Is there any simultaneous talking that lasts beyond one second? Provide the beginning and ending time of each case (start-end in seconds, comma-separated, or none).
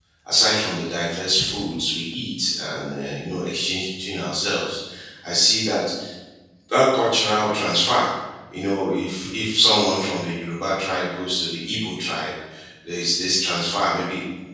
none